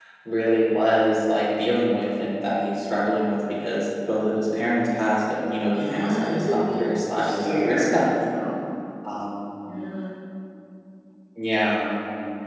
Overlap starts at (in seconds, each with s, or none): 5.7 s